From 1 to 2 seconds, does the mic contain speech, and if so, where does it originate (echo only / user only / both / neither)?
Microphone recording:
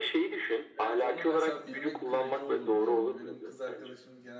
both